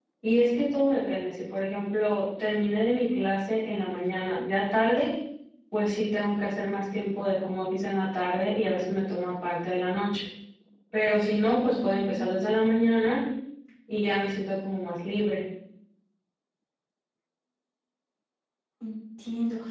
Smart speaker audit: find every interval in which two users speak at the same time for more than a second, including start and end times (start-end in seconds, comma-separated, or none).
11.6-12.8